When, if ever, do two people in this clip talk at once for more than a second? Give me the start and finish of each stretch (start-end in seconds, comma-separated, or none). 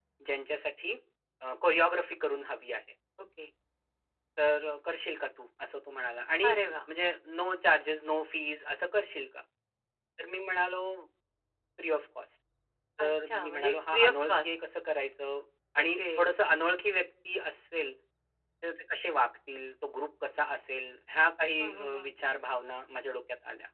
13.0-14.5